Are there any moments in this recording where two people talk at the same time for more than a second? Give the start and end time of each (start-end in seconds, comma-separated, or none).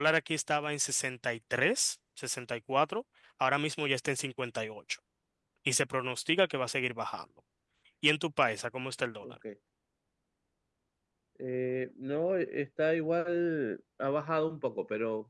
none